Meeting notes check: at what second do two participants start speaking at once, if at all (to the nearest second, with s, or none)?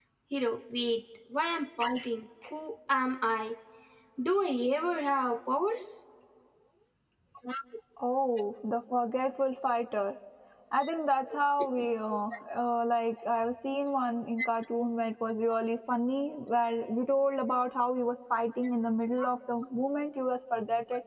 none